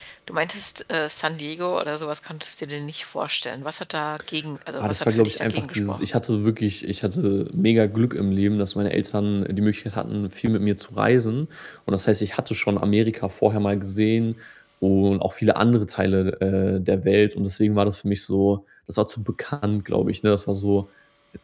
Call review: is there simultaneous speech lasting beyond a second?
Yes, from 4.8 s

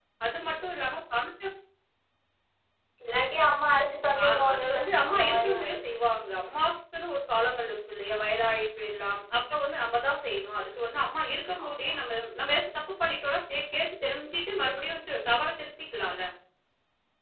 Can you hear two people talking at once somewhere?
Yes, from 4.2 s

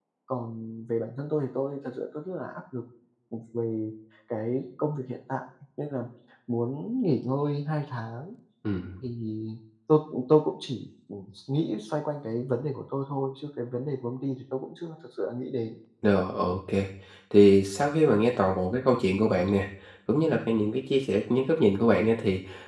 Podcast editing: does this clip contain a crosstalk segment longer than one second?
No

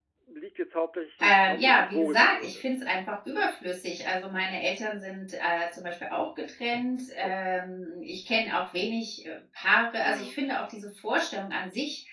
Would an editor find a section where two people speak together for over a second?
Yes, from 1.2 s

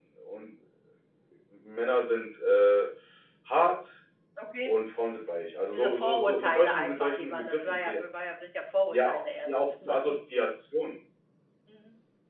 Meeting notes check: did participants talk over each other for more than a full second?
Yes, from 5.7 s

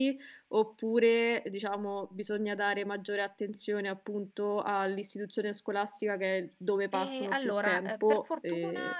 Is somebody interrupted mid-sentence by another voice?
Yes, from 6.9 s

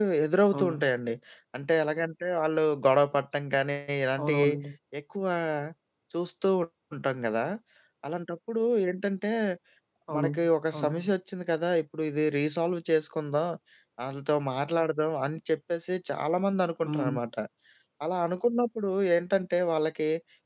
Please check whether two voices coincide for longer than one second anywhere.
No

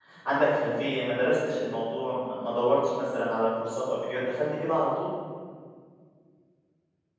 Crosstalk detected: No

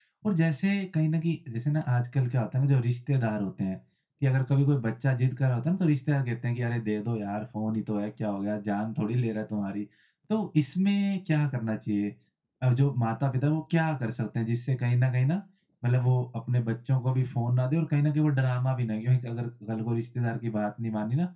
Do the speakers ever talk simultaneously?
No

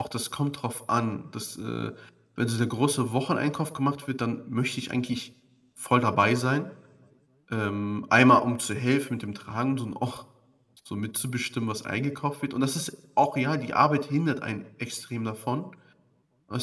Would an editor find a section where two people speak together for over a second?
No

